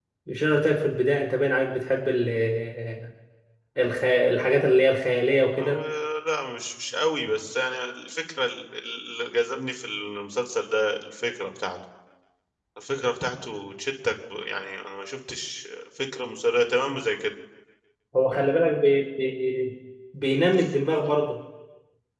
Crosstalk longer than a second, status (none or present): none